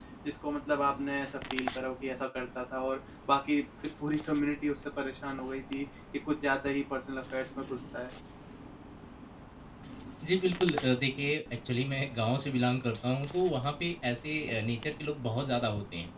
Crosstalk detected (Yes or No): No